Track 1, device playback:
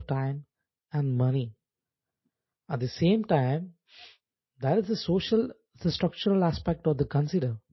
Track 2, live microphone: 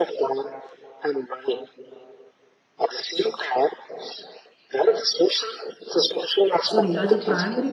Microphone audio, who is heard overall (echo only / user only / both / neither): both